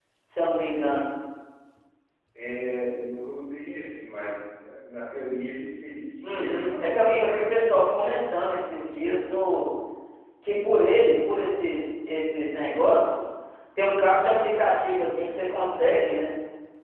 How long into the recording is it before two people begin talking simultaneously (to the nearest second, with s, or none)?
6 s